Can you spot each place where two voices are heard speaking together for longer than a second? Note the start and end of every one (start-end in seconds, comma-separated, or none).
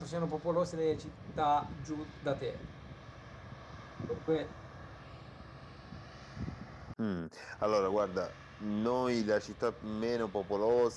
none